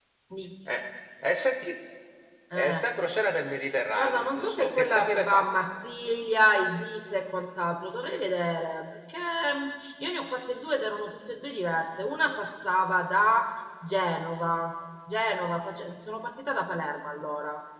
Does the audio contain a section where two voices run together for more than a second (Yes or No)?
Yes